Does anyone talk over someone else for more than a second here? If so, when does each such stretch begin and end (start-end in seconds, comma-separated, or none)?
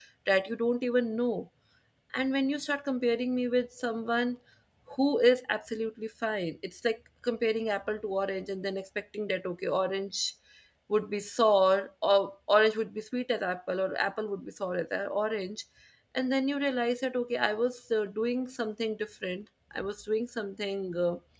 none